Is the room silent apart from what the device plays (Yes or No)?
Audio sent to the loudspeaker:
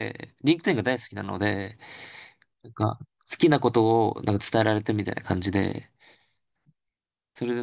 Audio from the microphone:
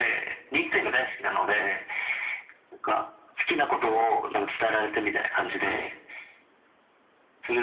Yes